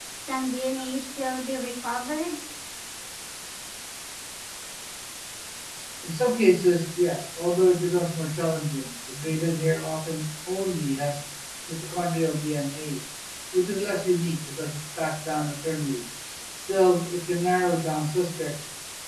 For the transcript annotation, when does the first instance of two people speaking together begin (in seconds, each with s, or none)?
none